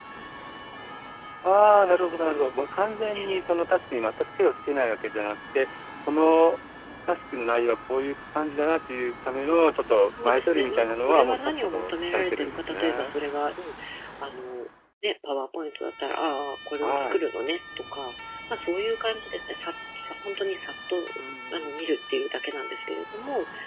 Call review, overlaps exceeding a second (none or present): present